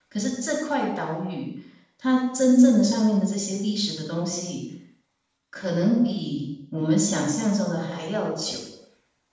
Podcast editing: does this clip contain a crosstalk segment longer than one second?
No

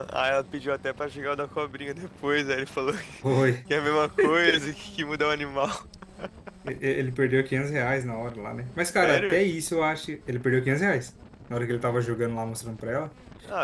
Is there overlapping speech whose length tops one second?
No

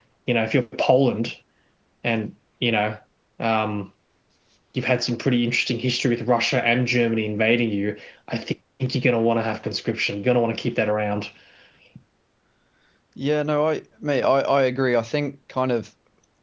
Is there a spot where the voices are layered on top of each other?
No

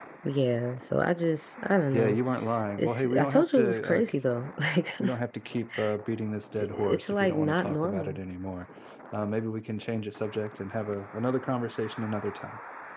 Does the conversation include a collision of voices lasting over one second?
Yes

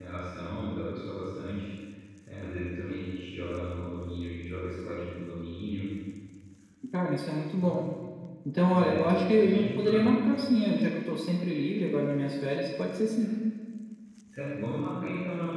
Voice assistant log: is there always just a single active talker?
No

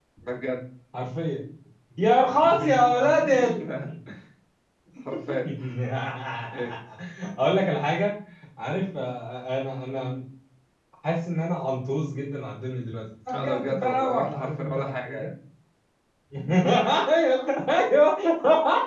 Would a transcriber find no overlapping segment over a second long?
No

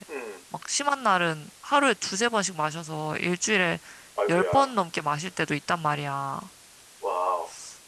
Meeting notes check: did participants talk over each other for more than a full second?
No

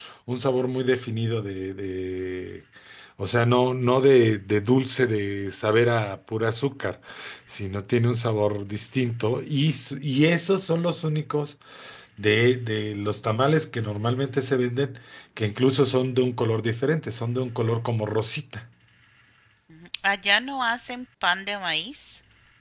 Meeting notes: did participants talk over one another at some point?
No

